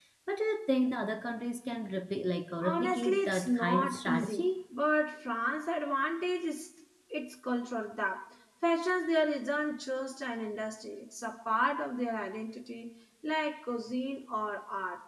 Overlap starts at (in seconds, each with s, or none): 2.6 s